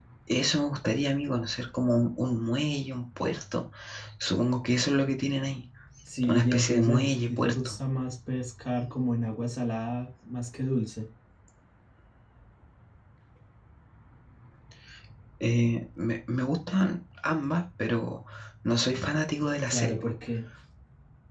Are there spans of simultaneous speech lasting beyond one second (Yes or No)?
Yes